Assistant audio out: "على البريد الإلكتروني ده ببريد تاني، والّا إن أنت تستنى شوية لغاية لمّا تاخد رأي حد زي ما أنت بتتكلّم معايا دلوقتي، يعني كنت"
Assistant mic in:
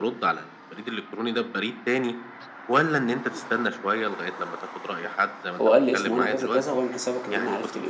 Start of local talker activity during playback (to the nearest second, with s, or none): 6 s